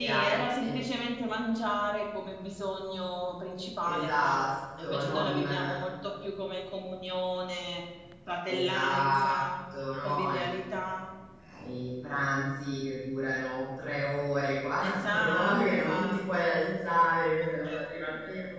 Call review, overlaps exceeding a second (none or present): present